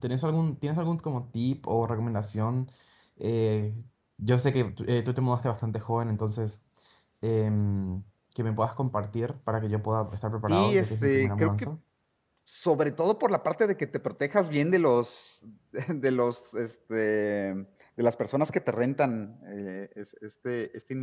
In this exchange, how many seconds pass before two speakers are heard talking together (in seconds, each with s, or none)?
10.5 s